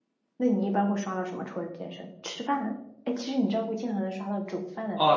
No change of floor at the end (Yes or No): No